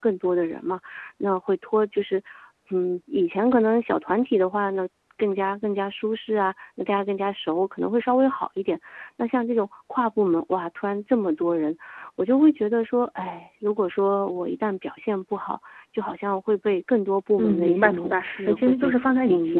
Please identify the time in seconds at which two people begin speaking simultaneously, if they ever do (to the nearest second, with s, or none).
17 s